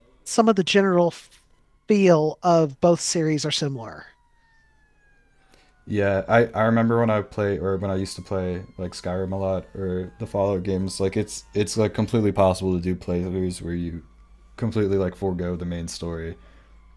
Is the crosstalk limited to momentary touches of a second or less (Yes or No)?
Yes